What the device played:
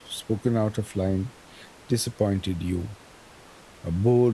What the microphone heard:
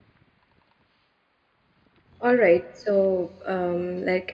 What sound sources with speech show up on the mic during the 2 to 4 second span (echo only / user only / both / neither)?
user only